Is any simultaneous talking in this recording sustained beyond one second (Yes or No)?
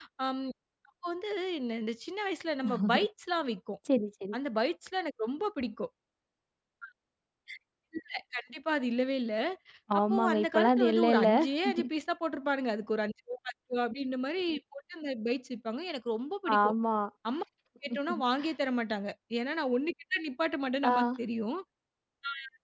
Yes